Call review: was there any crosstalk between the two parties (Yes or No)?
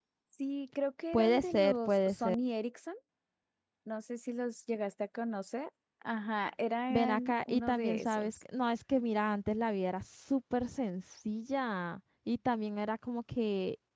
Yes